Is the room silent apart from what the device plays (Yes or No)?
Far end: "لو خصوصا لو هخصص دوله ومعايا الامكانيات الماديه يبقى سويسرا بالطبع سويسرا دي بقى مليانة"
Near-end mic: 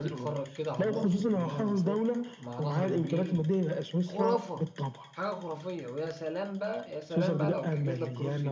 No